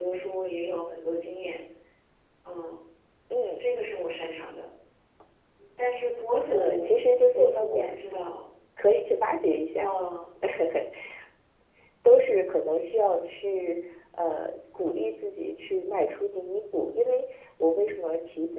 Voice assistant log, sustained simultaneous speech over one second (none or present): present